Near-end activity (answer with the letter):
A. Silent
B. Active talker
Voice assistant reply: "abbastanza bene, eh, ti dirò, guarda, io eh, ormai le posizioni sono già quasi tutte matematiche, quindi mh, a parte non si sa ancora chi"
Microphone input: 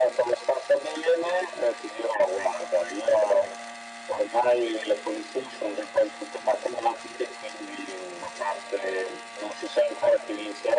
A